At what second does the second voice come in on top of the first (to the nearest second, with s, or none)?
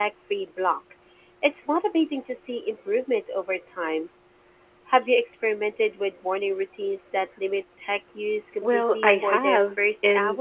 9 s